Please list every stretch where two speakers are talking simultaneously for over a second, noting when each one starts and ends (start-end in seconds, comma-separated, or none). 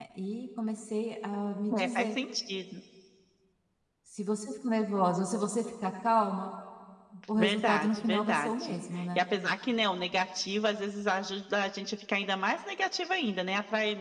7.4-8.7